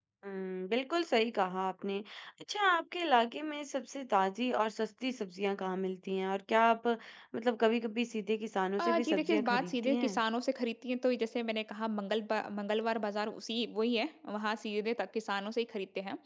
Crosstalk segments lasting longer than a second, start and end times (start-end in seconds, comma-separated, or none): 8.8-10.2